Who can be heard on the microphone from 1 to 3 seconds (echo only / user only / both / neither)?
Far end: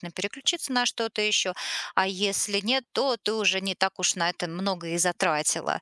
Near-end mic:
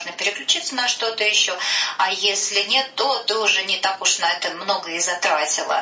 echo only